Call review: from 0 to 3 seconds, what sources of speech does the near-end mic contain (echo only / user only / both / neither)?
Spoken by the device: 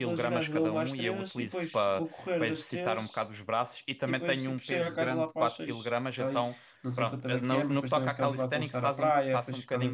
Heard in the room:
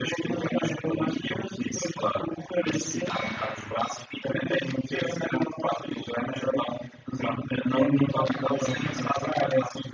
echo only